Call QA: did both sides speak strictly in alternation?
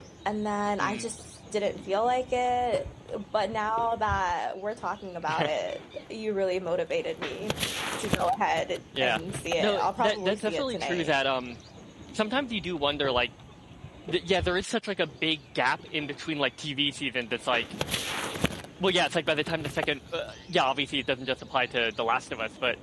No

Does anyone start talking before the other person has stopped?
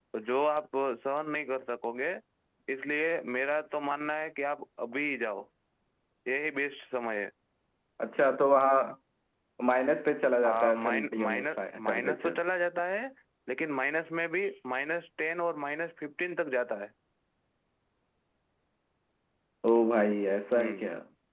Yes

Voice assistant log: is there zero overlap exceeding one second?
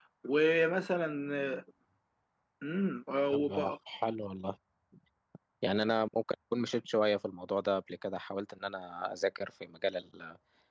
Yes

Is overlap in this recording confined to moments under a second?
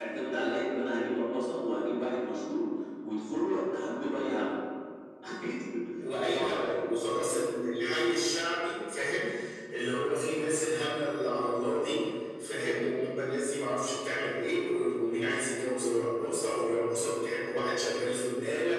Yes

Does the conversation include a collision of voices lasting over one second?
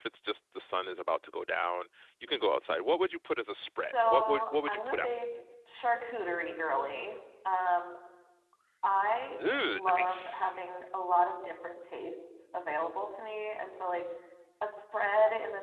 Yes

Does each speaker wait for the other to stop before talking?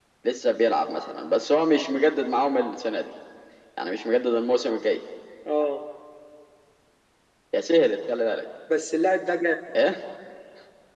Yes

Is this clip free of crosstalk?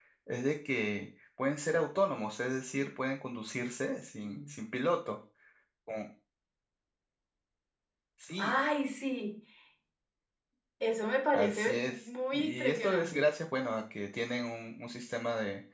No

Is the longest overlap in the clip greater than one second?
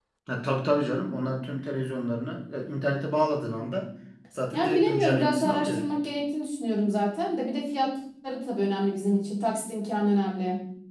Yes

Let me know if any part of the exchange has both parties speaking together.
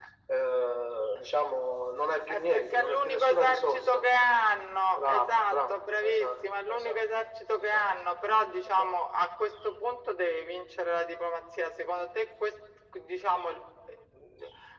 Yes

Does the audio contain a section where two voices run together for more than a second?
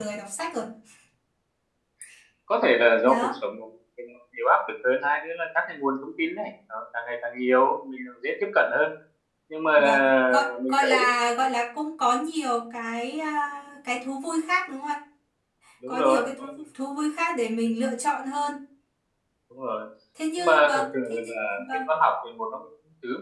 Yes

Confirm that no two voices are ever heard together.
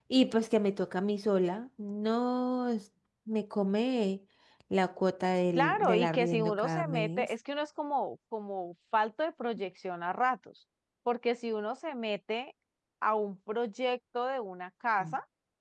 No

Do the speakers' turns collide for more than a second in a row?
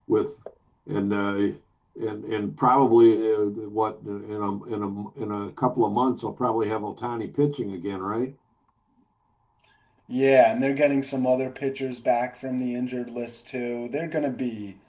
No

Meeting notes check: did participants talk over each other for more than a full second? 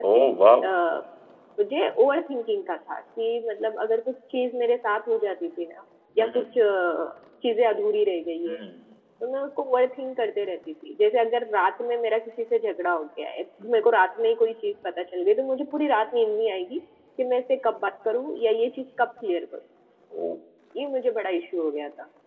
No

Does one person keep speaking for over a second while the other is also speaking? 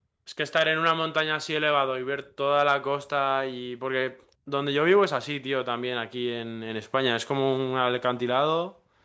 No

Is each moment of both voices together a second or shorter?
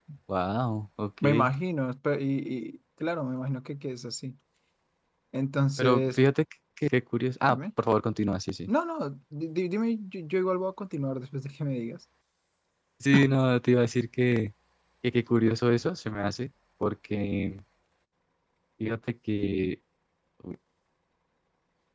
Yes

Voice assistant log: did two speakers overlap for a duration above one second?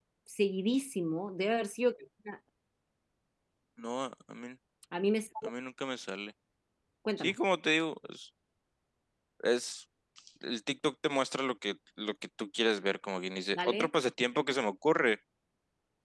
No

